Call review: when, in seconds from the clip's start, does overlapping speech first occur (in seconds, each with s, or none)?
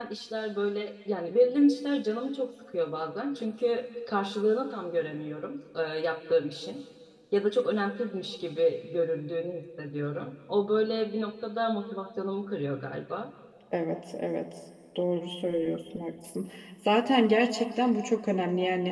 none